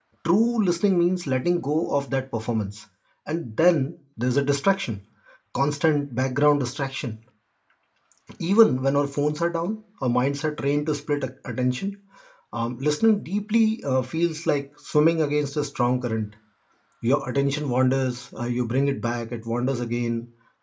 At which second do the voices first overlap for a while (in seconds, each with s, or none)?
none